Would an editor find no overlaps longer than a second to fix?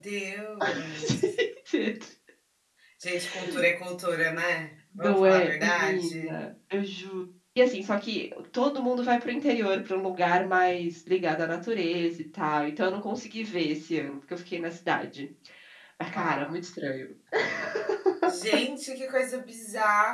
No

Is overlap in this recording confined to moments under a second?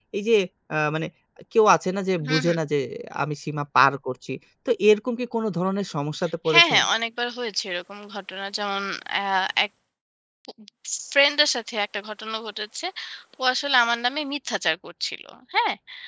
Yes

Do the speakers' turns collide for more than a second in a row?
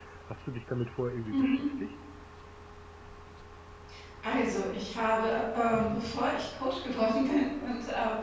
No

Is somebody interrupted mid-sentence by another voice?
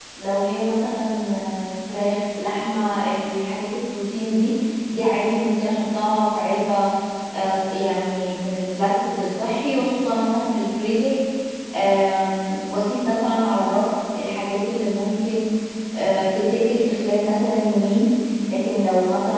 No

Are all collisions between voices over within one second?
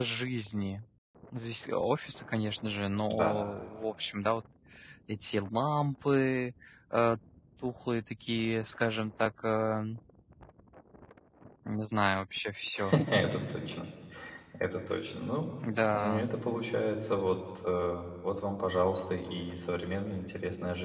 Yes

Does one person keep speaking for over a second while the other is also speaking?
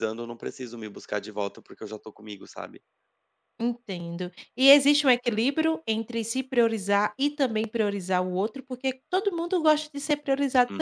No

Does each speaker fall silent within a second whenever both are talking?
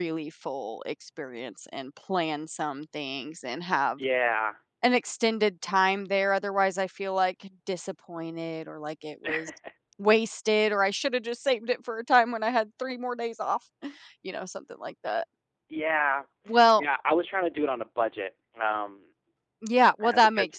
Yes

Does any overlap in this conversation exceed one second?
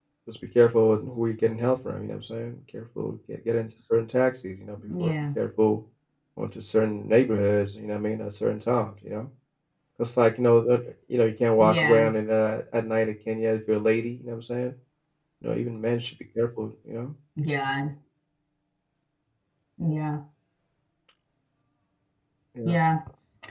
No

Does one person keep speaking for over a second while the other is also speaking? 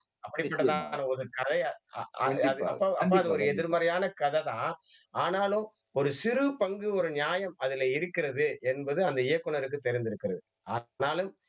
Yes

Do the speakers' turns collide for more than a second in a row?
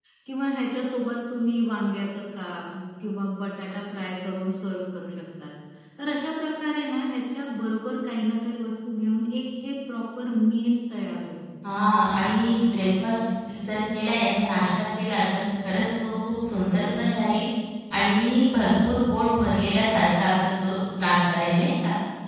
No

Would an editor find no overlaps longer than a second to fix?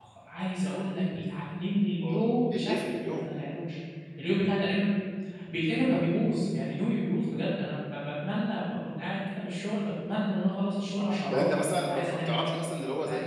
No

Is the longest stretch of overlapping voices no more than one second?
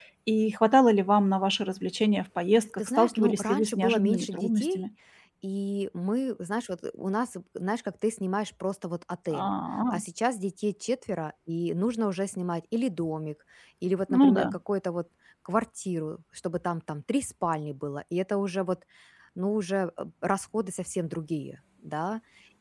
No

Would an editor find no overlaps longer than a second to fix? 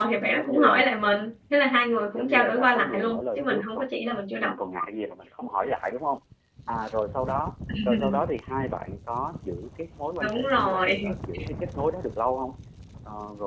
No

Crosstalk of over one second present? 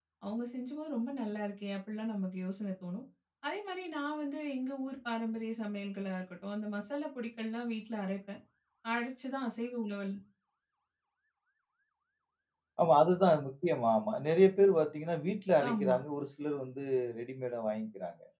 No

